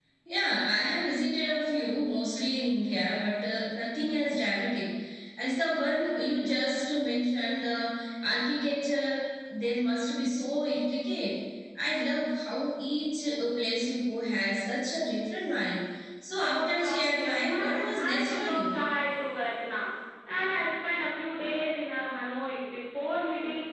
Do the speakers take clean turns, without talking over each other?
No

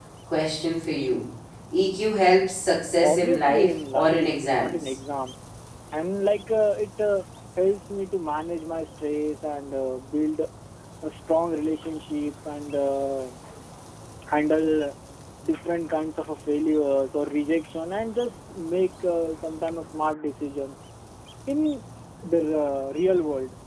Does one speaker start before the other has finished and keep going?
Yes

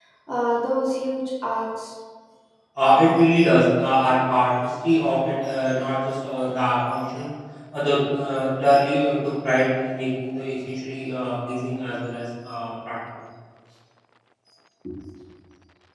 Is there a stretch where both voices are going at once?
No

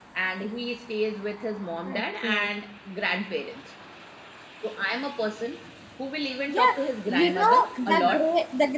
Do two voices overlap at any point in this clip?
Yes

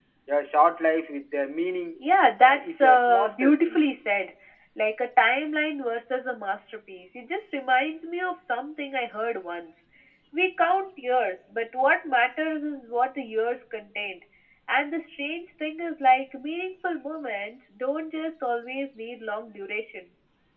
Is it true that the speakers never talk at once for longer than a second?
No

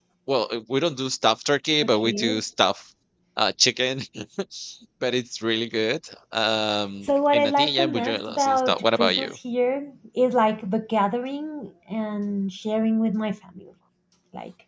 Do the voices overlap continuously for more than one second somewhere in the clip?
Yes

